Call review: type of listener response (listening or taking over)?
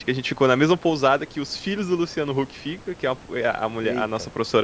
listening